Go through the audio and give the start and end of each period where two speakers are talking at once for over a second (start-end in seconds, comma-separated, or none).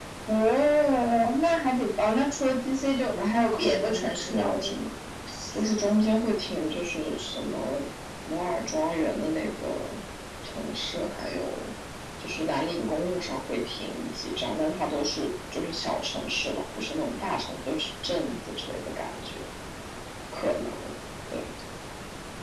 3.2-4.9